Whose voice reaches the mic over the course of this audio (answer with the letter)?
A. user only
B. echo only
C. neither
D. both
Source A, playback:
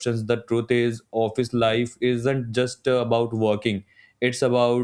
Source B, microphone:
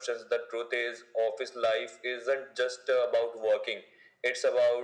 B